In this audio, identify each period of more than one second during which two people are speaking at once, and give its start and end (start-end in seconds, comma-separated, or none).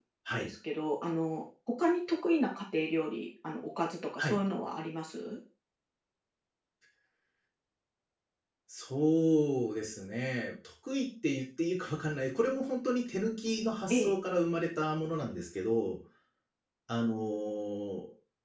none